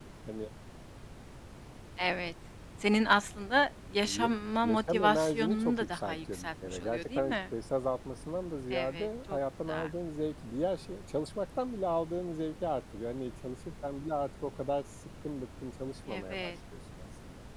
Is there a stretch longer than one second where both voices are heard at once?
Yes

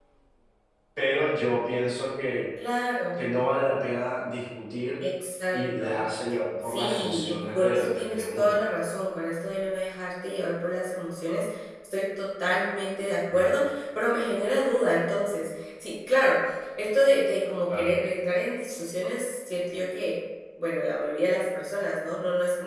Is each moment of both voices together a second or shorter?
No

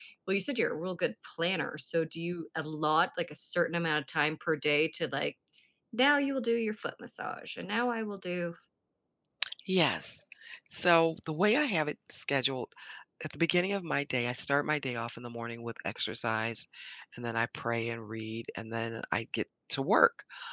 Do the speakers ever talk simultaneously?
No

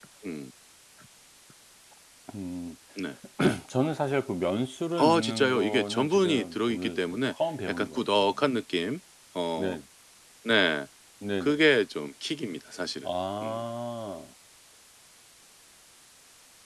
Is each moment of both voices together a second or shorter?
No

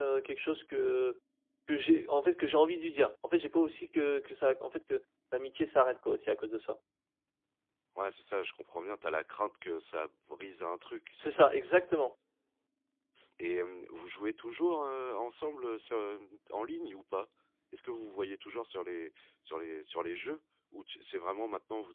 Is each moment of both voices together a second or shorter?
Yes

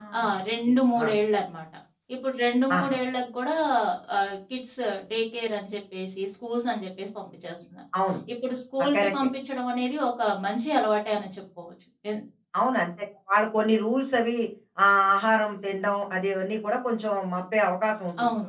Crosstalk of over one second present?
No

